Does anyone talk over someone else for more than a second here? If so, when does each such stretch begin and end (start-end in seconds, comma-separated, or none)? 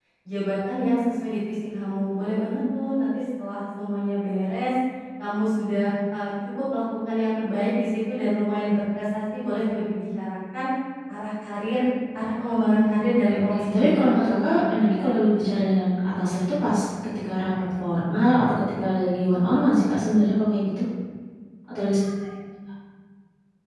12.7-15.1